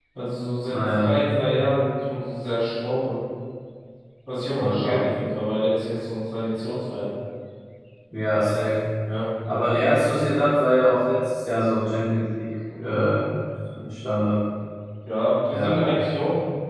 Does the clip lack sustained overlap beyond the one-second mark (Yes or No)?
Yes